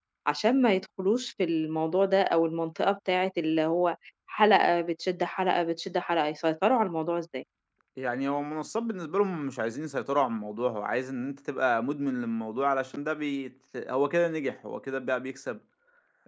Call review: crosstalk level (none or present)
none